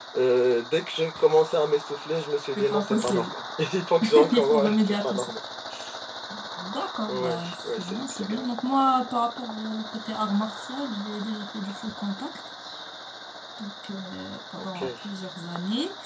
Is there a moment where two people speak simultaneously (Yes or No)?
Yes